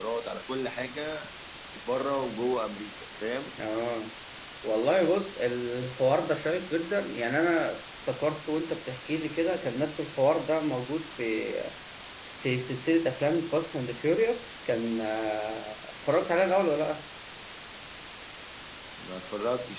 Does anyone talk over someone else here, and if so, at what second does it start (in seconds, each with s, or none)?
none